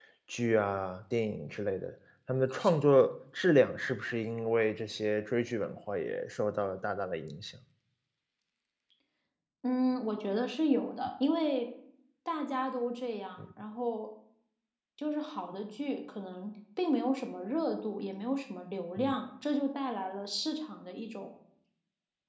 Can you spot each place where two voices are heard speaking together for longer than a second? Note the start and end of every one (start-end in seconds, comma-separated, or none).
none